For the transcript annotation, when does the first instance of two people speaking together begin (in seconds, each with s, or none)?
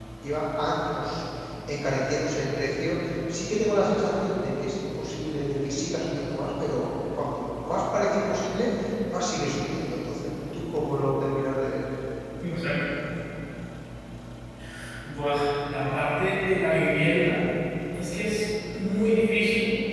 none